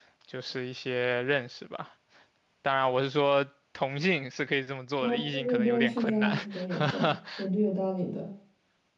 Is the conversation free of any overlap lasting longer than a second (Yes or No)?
No